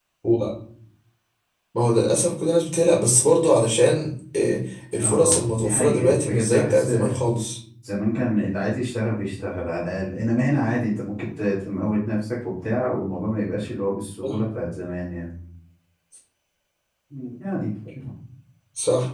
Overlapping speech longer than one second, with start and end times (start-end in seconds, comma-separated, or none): 5.0-6.9